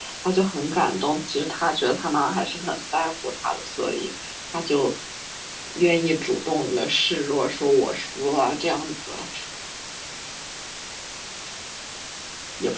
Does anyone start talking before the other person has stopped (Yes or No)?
No